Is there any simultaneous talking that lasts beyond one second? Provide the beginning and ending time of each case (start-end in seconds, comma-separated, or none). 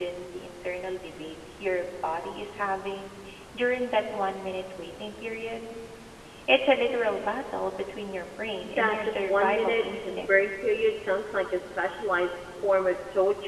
8.7-10.5